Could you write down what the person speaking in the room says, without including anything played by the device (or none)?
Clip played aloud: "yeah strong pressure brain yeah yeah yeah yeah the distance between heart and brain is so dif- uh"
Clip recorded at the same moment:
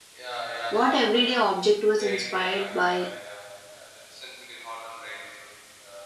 what everyday object was inspired by